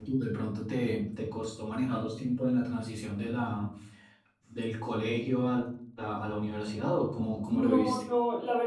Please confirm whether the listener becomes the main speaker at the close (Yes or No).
Yes